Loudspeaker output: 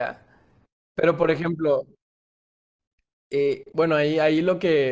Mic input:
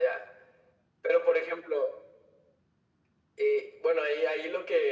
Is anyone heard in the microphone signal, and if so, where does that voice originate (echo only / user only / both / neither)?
echo only